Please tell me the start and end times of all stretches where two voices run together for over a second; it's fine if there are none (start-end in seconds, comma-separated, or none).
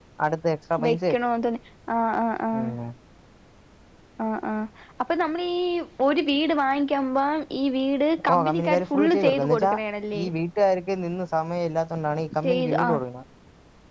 8.3-9.7